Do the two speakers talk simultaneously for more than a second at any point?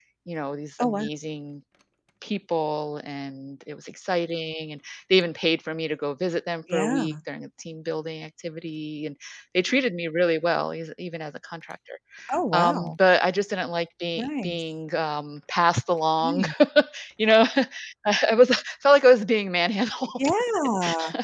No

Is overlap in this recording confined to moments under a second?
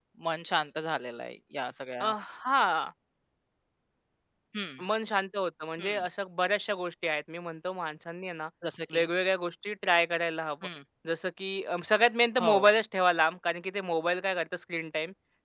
Yes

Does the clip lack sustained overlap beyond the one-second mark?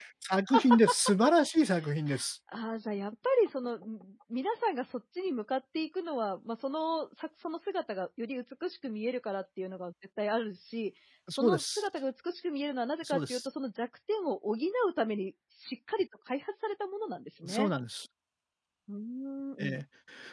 Yes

